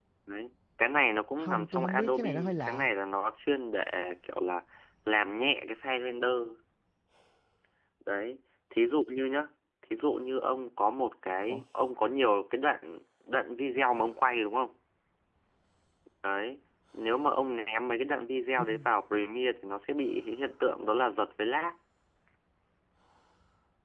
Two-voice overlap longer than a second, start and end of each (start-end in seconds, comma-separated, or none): 1.4-2.9